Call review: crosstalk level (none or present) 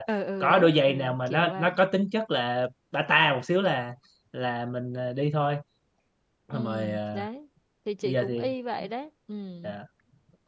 present